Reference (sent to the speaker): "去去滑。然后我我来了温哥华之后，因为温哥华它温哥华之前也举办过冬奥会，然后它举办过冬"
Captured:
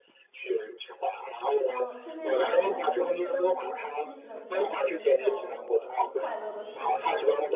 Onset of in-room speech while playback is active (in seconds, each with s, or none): 1.7 s